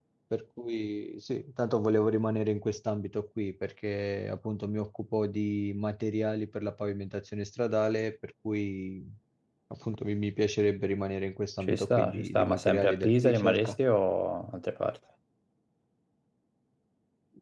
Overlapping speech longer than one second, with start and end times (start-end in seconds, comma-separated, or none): 11.6-13.8